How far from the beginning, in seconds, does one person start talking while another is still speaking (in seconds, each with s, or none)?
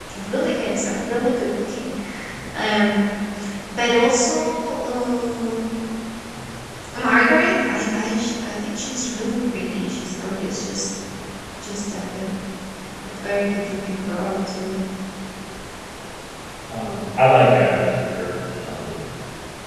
none